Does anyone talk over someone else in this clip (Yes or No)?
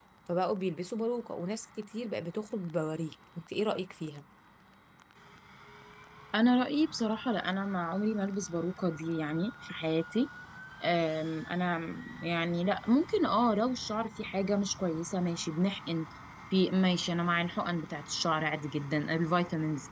No